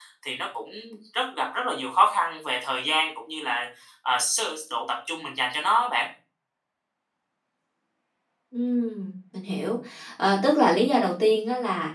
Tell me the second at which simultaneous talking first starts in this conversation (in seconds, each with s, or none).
none